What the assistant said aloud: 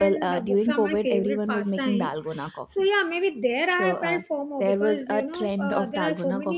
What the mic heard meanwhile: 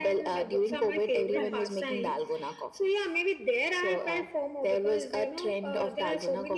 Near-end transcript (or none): Correct.